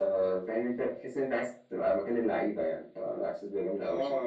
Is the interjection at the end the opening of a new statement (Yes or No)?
Yes